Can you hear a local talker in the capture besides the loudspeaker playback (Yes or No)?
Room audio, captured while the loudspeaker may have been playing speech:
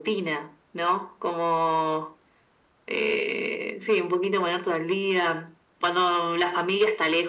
No